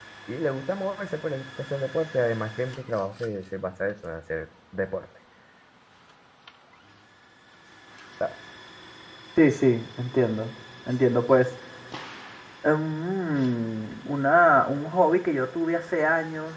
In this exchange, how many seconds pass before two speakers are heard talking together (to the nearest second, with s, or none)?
none